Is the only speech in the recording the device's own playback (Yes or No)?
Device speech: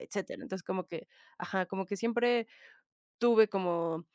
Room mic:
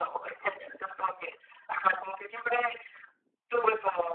Yes